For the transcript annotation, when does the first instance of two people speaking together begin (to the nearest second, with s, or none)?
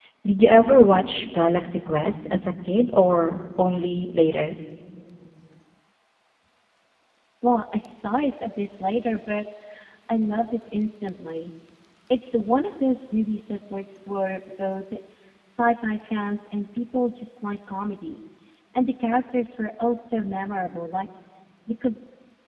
none